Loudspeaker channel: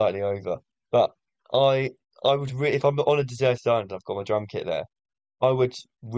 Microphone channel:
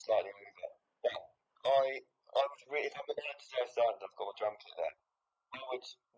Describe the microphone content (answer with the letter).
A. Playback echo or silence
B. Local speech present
A